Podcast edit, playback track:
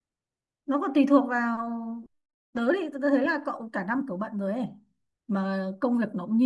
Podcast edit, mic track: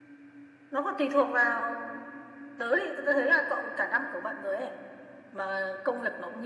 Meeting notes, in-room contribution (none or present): none